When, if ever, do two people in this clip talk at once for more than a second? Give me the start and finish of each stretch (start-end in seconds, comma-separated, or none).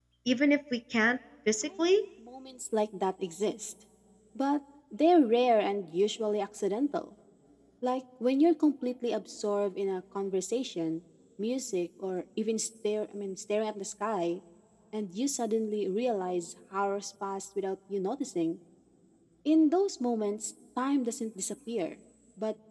none